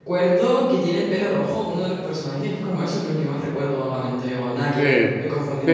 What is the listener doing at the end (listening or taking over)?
taking over